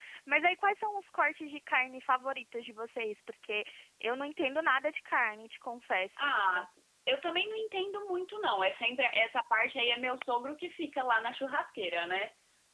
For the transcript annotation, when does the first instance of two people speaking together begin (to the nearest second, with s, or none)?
none